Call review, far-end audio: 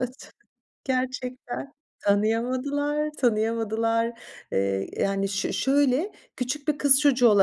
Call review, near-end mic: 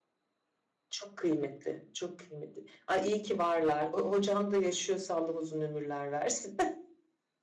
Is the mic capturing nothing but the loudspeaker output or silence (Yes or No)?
No